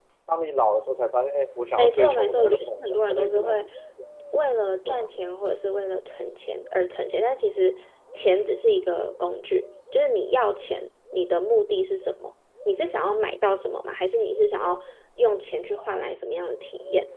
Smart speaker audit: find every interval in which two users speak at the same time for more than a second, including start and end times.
1.8-3.6

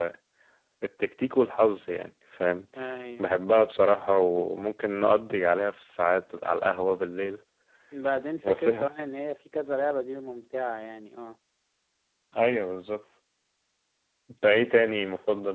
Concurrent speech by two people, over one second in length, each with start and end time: none

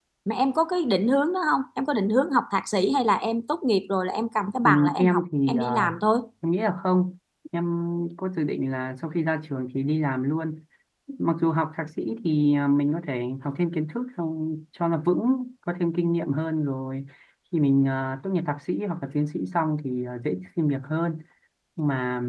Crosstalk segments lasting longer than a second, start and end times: 4.6-5.9

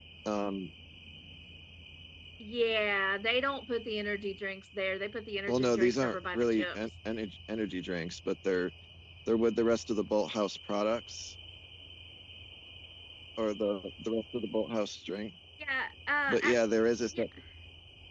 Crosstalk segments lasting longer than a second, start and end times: 5.5-6.8

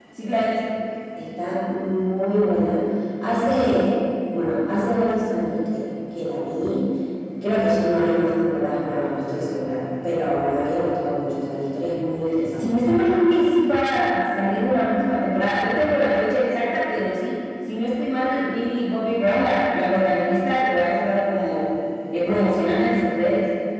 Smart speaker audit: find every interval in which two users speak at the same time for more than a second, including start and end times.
none

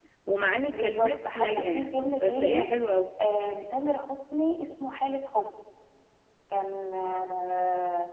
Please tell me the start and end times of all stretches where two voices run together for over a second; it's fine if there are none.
0.7-2.6

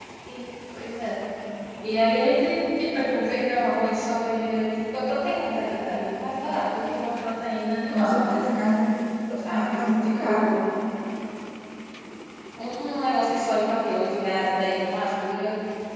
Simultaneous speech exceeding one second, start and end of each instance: 9.4-10.6

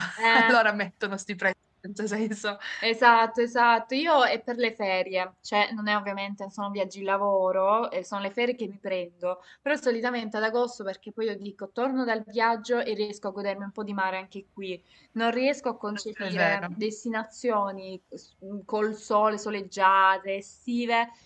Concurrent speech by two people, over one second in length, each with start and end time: none

